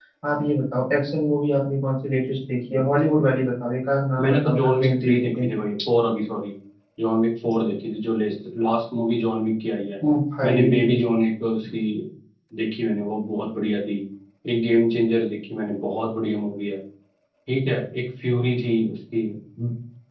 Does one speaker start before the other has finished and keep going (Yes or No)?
Yes